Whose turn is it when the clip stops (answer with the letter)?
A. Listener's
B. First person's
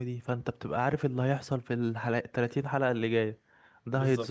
B